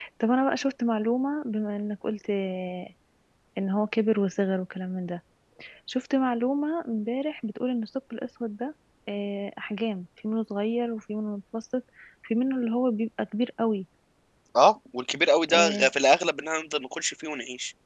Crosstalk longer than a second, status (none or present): none